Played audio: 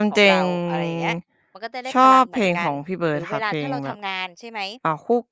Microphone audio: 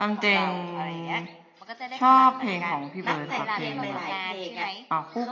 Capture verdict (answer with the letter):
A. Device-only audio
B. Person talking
B